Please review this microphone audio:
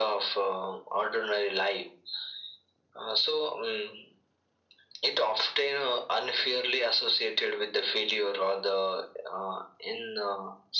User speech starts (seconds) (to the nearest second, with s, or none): none